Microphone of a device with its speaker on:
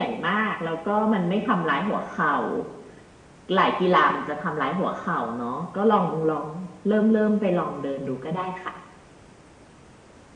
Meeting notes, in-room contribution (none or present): none